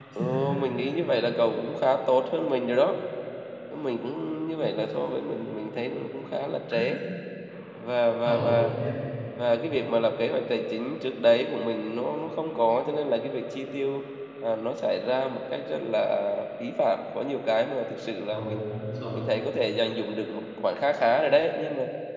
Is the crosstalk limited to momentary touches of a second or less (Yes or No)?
Yes